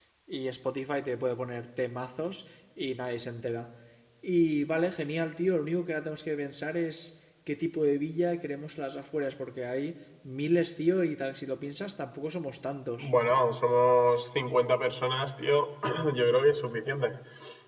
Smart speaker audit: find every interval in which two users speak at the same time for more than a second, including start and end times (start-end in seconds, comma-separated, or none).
none